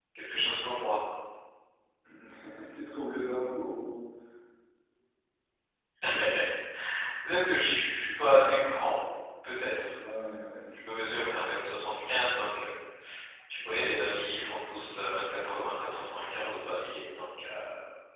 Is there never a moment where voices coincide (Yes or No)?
Yes